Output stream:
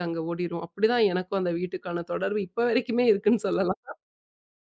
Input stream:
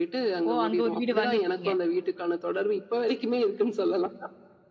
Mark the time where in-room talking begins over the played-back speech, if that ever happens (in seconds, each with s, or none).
0.5 s